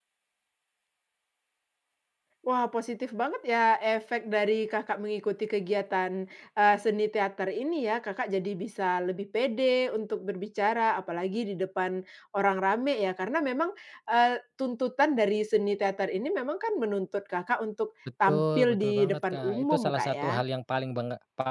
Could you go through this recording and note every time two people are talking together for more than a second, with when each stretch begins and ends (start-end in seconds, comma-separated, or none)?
18.3-20.3